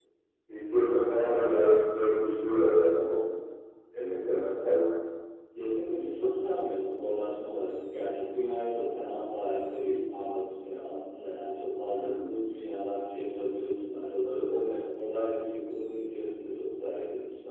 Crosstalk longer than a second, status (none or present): none